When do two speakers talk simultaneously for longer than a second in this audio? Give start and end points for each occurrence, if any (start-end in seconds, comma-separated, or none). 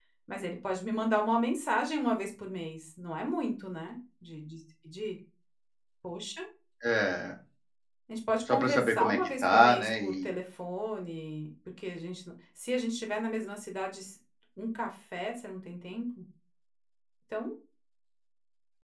8.5-10.3